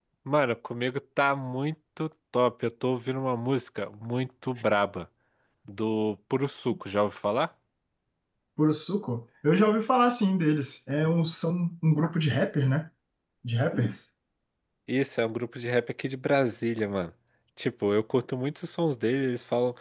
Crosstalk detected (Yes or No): No